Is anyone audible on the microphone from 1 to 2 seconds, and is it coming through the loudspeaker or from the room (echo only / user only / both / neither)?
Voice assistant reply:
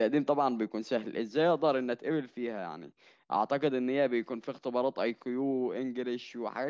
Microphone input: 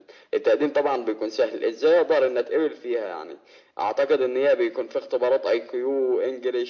echo only